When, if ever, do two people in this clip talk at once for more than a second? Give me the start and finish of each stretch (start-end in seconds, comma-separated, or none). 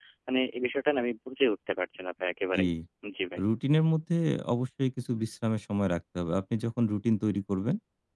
none